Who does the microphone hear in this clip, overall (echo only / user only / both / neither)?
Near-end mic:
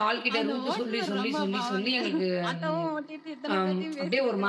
both